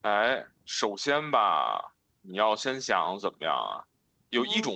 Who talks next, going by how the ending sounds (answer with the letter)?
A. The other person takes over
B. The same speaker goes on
B